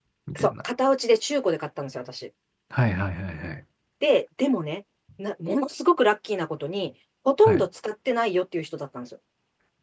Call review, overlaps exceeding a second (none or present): none